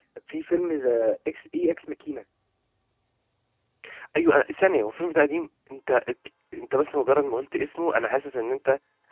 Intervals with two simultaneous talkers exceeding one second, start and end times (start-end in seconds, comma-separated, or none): none